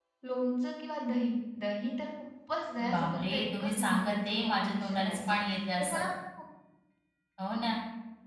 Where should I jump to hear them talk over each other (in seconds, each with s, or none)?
2.8 s